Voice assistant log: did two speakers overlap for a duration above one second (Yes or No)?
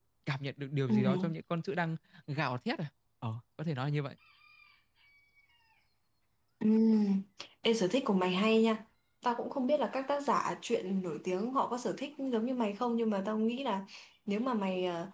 No